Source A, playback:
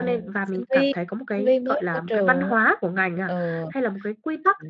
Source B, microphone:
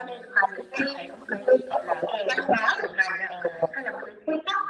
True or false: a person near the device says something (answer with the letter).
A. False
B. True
A